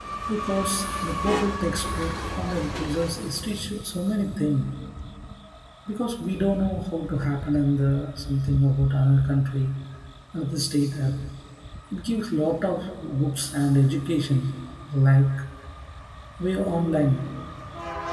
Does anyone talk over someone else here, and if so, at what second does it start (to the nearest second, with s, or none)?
none